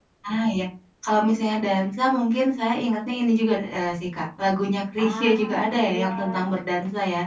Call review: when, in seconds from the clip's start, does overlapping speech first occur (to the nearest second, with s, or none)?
5 s